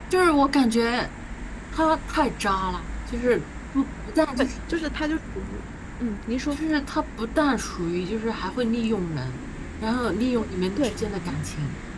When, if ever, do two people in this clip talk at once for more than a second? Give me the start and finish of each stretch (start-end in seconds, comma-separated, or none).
none